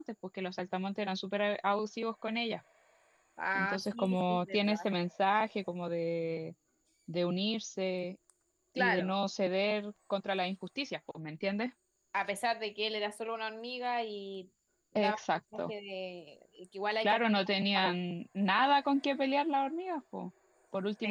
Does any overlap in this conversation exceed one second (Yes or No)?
Yes